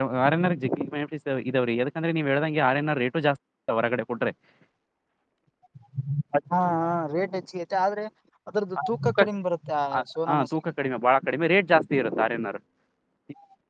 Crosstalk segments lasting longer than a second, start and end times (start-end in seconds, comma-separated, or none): none